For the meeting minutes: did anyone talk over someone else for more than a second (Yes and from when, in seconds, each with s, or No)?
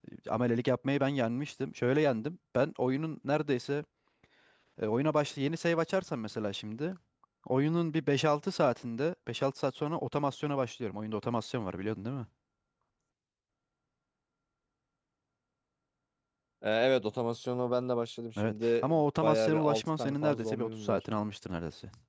Yes, from 18.4 s